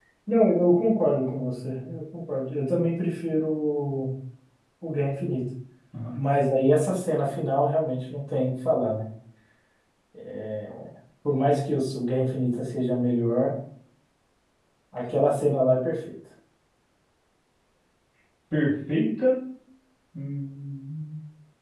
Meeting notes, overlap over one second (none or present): none